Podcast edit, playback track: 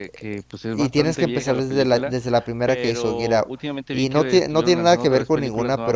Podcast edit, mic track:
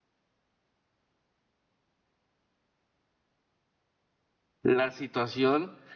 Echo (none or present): none